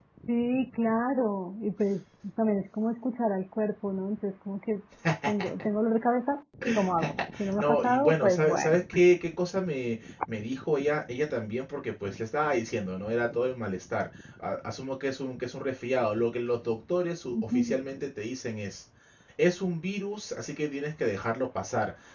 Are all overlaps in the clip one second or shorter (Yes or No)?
No